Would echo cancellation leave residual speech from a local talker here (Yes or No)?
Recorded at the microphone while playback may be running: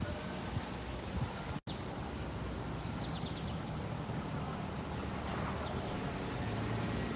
No